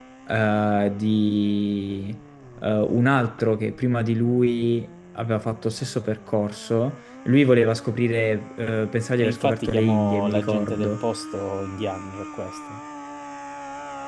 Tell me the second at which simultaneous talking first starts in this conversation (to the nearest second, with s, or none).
9 s